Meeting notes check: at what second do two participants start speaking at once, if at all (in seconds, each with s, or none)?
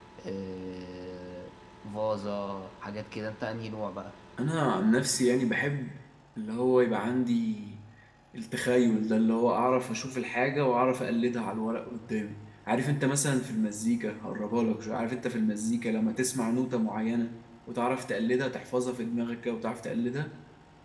none